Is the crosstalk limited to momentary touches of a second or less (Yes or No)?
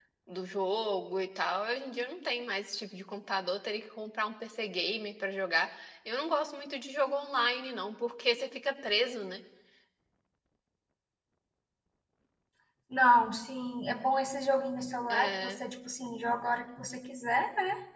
Yes